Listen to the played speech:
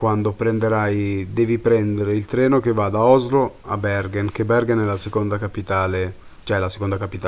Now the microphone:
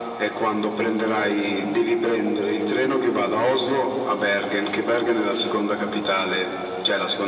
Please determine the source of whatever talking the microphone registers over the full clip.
echo only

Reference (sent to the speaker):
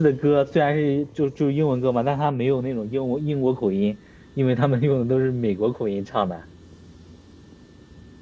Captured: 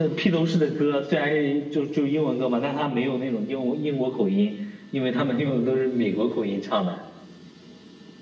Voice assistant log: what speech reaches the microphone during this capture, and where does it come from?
echo only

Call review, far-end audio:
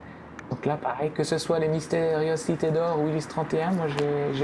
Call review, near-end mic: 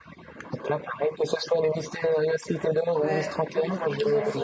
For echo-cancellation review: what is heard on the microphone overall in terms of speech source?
both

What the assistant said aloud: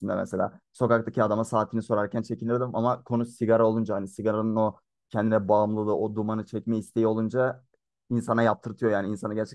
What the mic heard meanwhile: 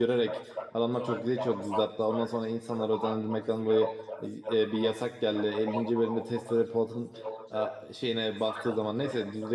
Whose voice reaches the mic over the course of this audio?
both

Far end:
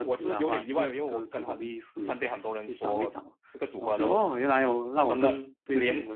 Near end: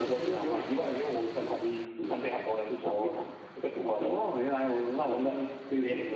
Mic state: echo only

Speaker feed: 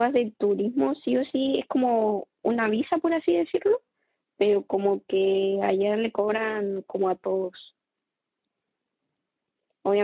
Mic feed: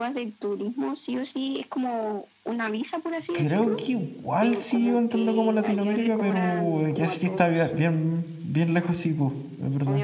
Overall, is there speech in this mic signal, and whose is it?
both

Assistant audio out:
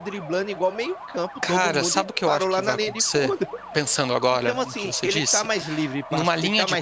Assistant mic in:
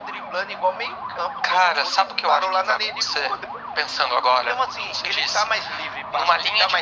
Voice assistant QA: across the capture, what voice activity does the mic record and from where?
echo only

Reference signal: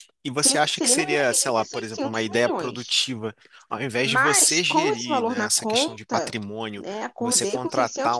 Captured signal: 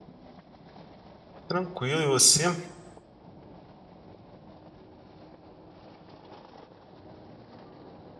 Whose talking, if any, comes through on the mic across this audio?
user only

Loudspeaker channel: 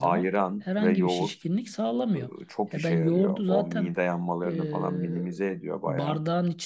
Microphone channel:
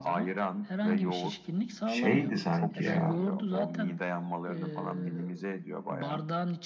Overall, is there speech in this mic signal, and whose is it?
both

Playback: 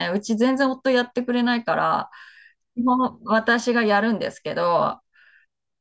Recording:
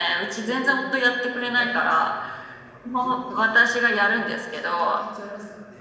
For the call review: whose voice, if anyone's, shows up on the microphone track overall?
both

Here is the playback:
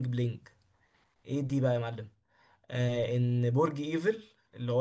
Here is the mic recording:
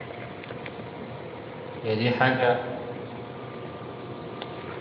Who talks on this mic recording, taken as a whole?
user only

